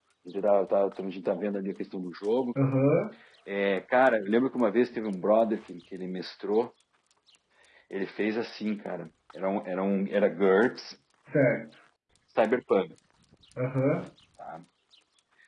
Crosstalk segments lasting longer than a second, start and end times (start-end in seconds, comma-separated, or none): none